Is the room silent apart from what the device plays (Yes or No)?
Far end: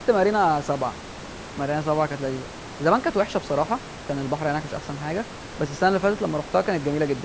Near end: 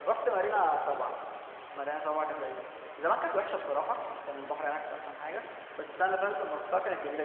Yes